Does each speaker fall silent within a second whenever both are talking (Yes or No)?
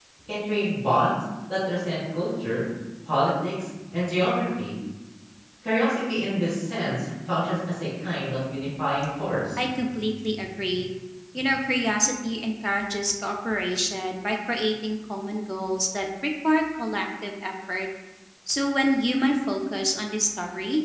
Yes